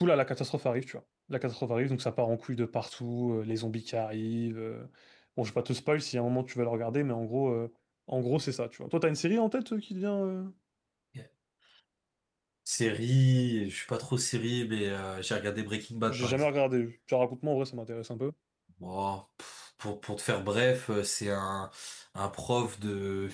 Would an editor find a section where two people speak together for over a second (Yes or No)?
No